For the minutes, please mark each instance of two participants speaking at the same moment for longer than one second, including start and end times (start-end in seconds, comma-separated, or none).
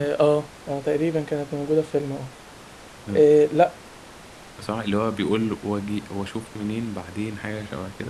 none